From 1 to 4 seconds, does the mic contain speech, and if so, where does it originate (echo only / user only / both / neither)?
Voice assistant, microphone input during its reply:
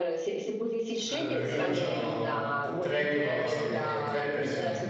both